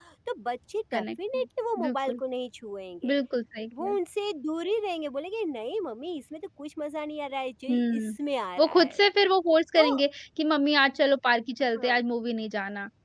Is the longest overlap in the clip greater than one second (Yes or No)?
No